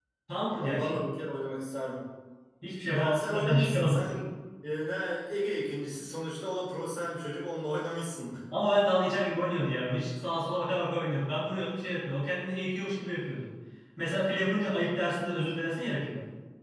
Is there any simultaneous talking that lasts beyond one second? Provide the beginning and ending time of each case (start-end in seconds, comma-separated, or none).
2.9-4.3